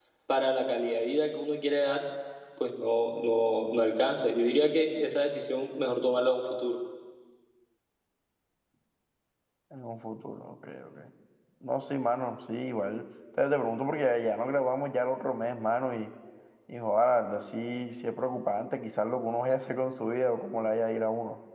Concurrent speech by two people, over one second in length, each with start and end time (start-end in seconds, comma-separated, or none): none